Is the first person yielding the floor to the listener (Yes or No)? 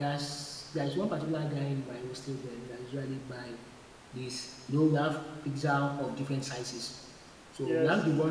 No